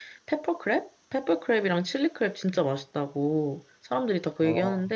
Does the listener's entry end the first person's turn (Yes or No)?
No